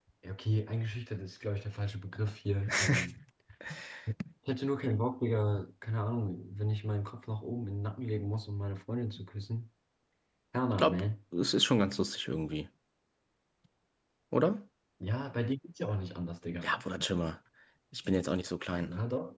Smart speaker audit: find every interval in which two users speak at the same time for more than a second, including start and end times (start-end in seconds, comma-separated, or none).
none